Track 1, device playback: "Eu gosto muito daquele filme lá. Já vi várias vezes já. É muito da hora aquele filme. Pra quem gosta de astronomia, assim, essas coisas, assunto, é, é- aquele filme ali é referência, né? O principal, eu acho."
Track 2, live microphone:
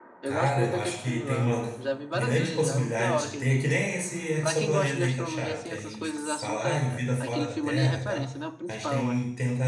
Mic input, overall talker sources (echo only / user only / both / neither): both